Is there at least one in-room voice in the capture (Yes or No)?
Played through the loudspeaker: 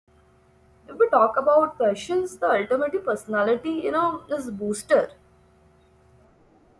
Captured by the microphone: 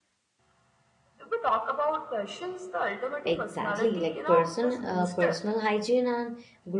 Yes